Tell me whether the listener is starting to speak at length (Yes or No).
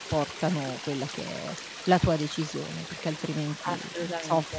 Yes